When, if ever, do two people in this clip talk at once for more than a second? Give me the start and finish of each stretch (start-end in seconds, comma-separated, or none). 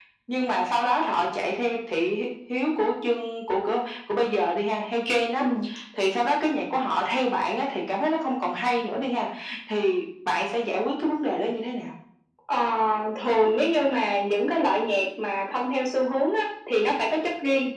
none